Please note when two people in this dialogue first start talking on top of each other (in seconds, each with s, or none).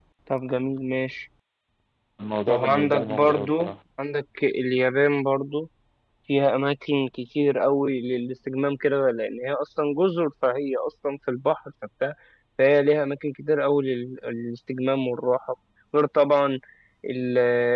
2.5 s